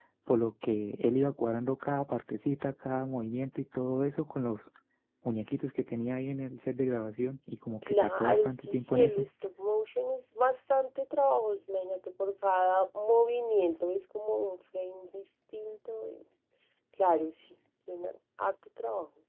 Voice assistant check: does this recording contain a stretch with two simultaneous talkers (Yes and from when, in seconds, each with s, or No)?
Yes, from 7.8 s